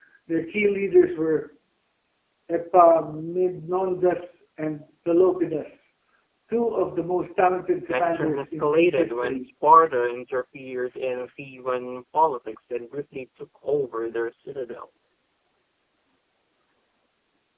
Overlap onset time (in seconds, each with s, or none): 7.9 s